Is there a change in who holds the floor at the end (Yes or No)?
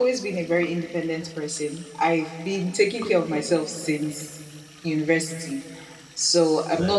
No